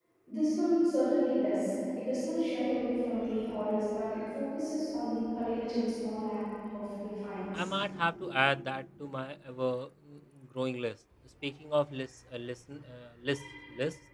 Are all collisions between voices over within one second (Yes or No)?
Yes